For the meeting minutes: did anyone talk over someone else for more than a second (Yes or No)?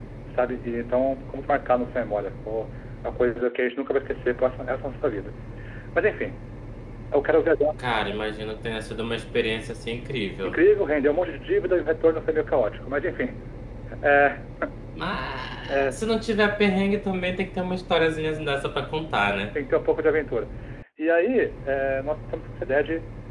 No